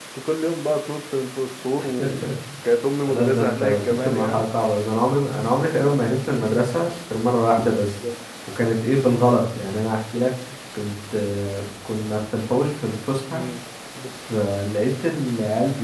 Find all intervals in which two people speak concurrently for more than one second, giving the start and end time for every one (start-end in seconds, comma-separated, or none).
3.1-4.5